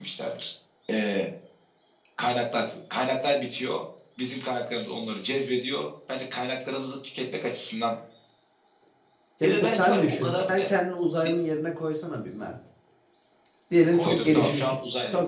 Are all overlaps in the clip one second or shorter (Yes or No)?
No